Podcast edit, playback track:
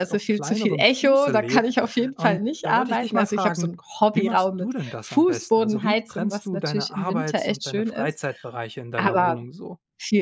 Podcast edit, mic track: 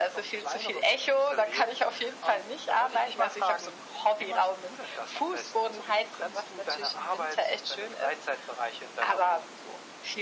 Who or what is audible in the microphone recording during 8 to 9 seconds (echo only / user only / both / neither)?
echo only